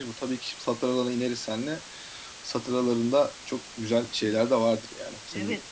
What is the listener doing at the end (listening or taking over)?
taking over